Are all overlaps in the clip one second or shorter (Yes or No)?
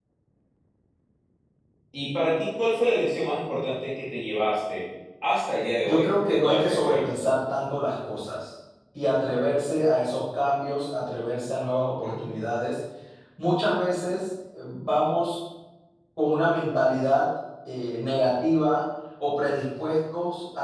No